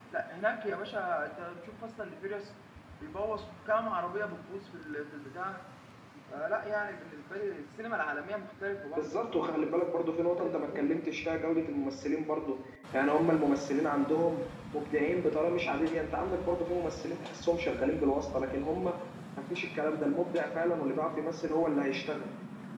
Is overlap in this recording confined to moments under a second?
Yes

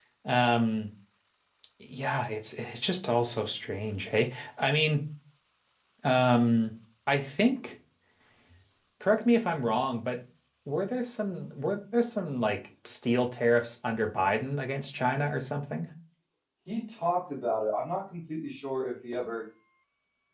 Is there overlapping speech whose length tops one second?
No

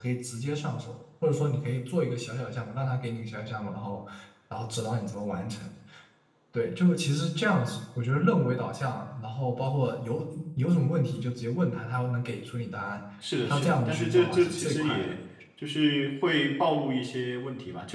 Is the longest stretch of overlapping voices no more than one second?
No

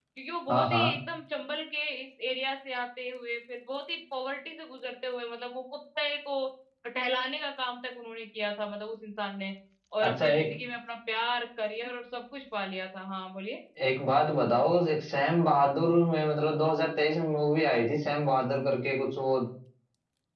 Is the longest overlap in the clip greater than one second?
No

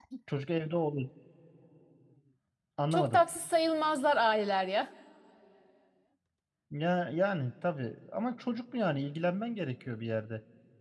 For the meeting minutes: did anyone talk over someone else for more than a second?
No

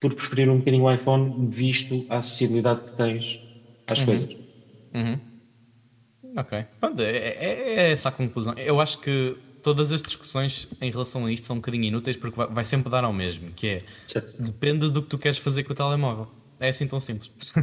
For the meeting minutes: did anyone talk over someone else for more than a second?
No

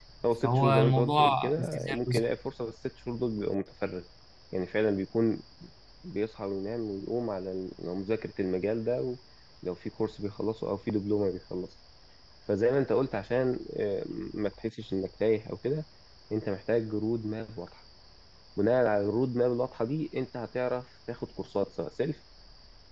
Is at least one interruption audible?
Yes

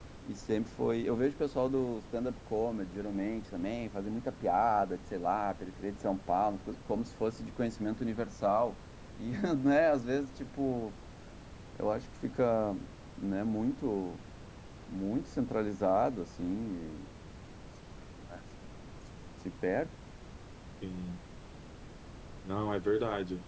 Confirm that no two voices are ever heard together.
Yes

